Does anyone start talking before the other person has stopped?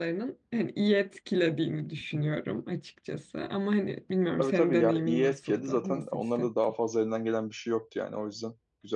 Yes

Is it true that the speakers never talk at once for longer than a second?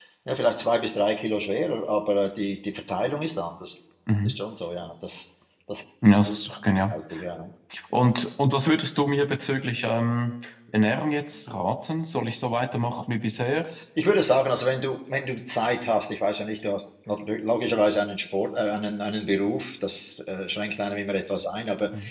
Yes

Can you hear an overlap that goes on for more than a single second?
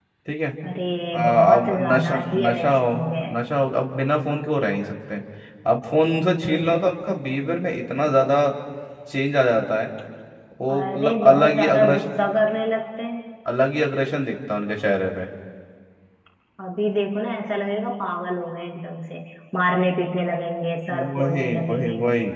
Yes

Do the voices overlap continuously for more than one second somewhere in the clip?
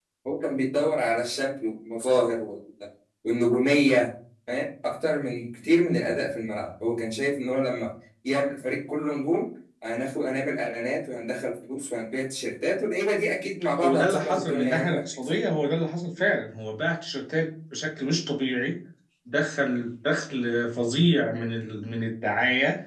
Yes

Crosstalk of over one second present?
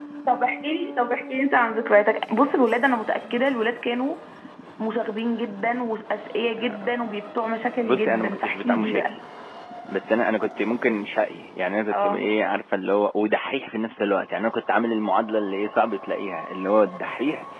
Yes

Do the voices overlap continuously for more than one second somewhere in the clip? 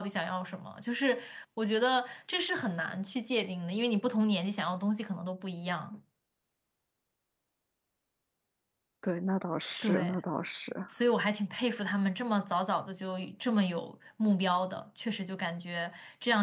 No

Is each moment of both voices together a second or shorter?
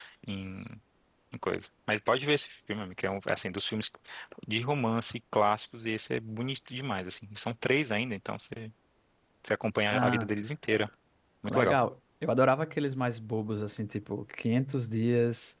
Yes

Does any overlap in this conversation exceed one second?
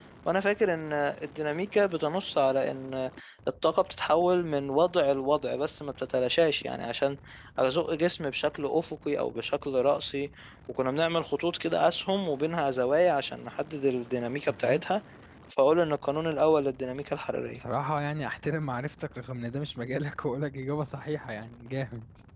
No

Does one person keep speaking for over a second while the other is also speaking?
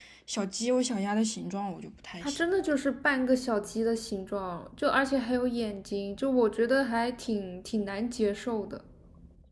No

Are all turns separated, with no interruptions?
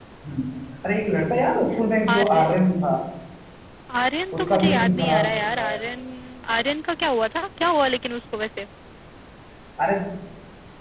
No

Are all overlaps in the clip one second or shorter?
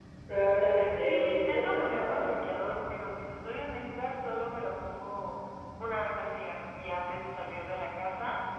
No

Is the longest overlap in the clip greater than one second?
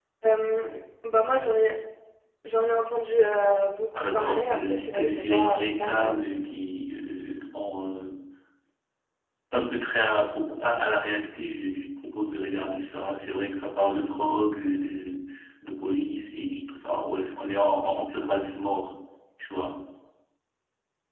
Yes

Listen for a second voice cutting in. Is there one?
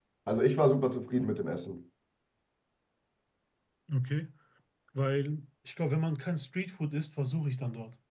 No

